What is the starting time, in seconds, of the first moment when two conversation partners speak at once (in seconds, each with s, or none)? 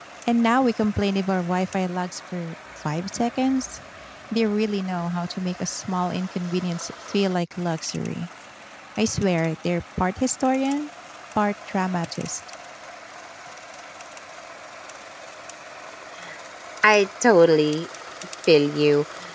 none